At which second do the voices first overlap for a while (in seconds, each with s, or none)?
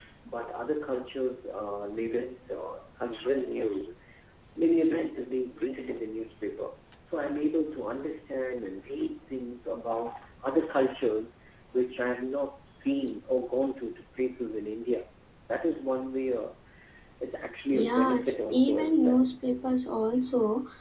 17.7 s